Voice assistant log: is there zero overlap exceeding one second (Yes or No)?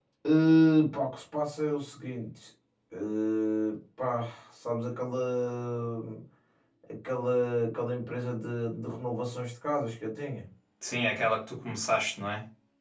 Yes